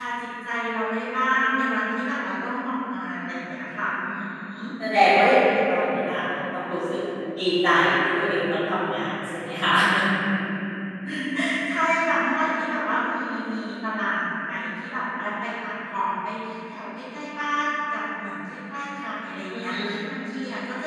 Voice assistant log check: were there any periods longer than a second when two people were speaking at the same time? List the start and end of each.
none

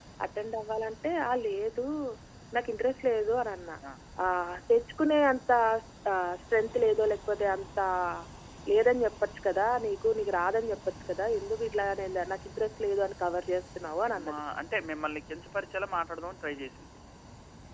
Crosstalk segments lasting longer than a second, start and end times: none

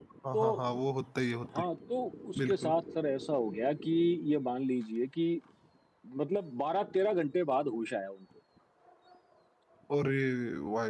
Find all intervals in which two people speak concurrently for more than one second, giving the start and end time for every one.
none

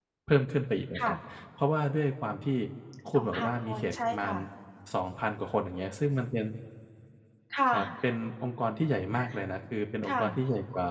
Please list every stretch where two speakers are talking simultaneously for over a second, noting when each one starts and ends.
3.1-4.4

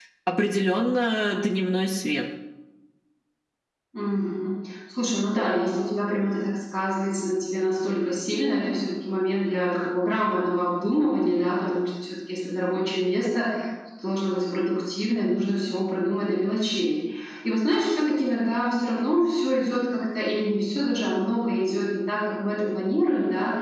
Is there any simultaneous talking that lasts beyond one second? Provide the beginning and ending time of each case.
none

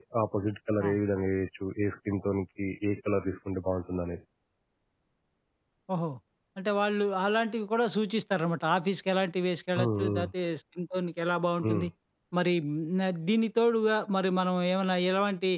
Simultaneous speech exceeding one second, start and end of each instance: none

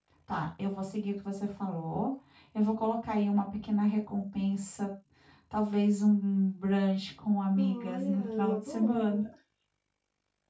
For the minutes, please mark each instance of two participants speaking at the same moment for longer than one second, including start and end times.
7.6-9.2

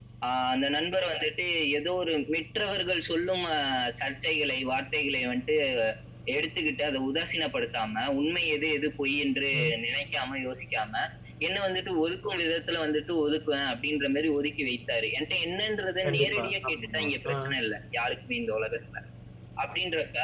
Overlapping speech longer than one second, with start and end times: 16.0-17.3

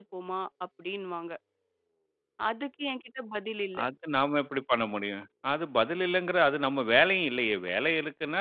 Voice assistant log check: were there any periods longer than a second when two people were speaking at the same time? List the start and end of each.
none

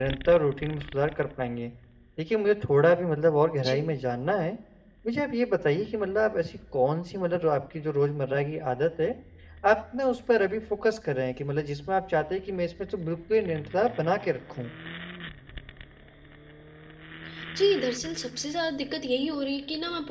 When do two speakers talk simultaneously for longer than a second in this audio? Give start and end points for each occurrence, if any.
none

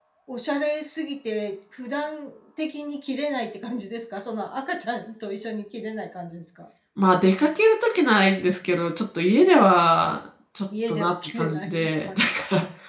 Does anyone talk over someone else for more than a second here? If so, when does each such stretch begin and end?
10.9-12.3

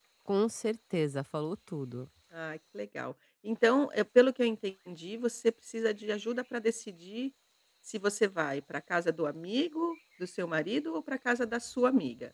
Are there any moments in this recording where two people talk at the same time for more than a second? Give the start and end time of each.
none

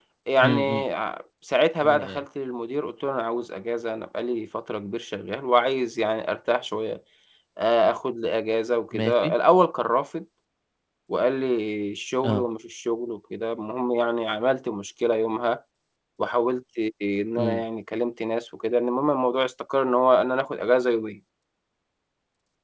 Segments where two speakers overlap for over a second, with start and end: none

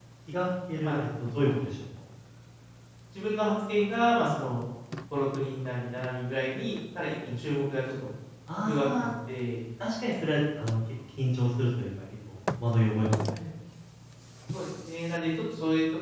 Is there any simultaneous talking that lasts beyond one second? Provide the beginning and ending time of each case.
none

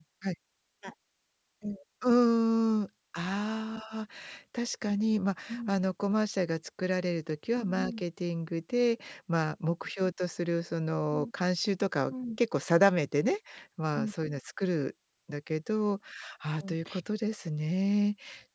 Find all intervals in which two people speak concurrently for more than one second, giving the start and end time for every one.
none

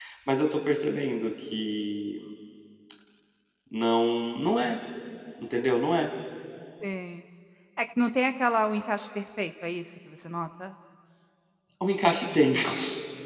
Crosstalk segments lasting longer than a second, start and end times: none

